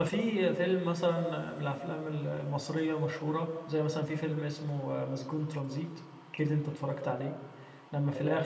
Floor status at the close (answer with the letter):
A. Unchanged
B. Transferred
A